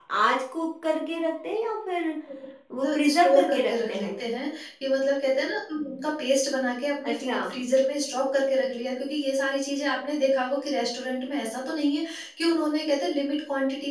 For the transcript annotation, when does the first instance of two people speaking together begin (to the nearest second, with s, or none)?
3 s